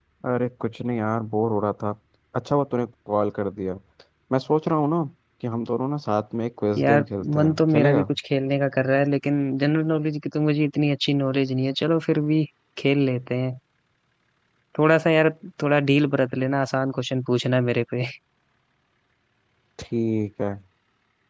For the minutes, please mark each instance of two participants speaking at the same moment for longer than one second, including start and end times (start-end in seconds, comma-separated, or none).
6.8-8.0